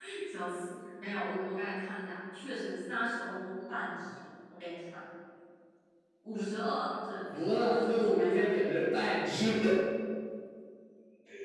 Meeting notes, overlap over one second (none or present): present